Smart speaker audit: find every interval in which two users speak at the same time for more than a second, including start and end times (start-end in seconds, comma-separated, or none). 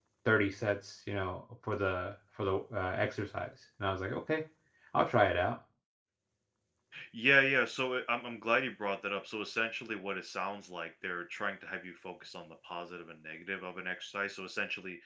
none